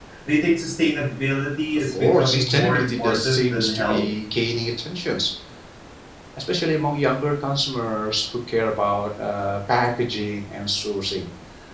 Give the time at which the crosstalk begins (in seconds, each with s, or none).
1.8 s